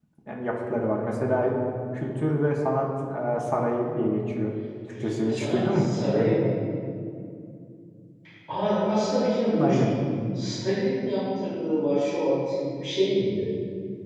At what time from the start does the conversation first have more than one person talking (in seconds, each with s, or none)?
5.0 s